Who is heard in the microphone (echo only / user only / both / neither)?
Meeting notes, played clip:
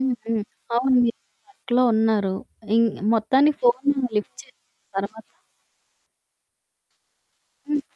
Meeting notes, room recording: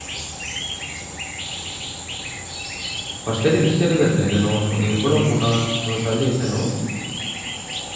user only